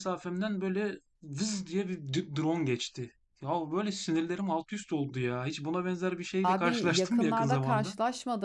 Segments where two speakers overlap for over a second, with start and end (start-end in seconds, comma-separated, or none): 6.4-7.9